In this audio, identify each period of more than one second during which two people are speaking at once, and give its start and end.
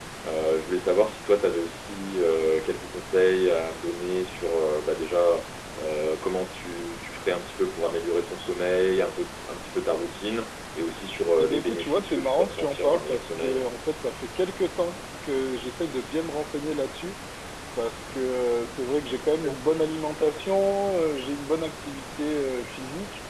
11.4-13.7

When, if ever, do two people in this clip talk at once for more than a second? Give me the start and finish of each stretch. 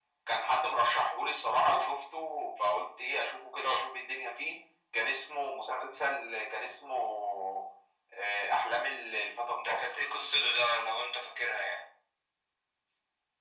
none

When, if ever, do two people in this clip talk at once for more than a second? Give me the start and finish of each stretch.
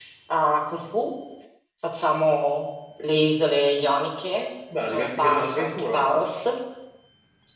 4.9-6.2

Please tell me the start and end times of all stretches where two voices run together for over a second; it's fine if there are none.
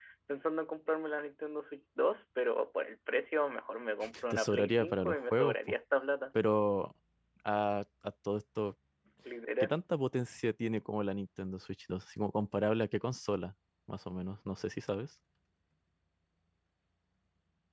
4.3-5.5

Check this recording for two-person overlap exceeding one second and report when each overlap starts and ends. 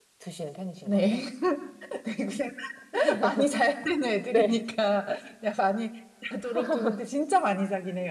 none

